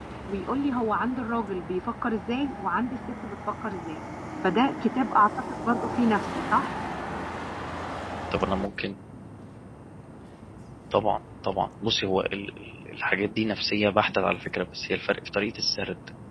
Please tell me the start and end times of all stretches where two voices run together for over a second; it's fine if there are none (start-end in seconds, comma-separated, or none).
none